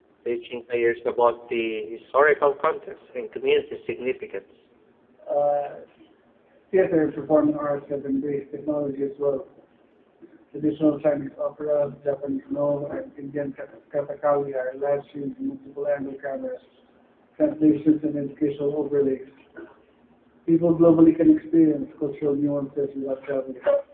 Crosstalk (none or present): none